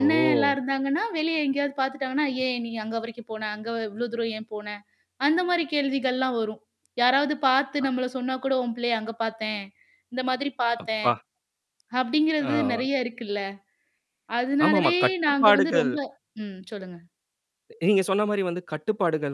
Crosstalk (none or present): present